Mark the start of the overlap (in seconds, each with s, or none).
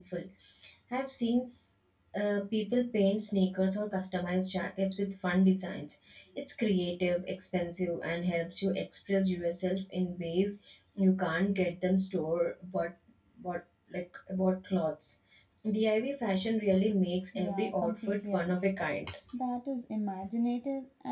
17.3 s